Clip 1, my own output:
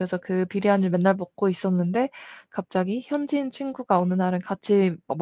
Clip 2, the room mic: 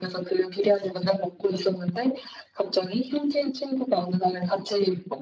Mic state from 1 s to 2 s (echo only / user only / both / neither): echo only